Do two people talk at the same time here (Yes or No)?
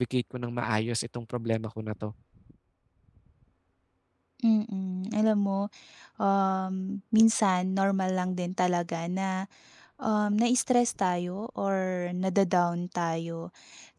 No